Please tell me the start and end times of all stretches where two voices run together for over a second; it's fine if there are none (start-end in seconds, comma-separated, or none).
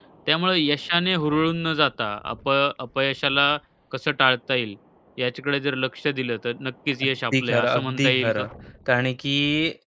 7.0-8.4